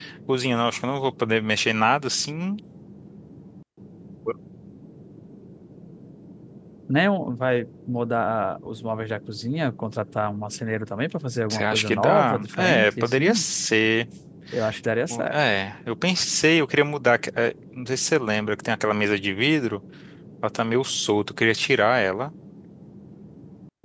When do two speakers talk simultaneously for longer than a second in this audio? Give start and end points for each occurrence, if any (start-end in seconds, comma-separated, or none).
11.5-13.4